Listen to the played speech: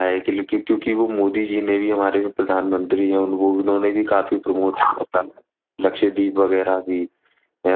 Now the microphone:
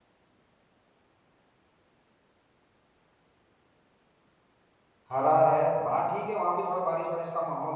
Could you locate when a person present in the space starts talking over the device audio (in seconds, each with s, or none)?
5.1 s